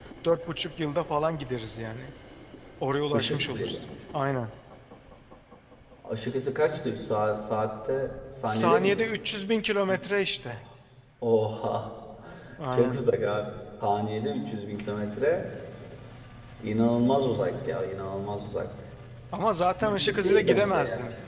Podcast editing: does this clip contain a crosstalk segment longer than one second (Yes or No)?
Yes